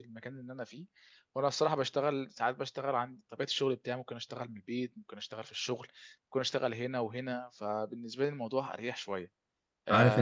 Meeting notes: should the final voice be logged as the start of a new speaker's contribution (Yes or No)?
Yes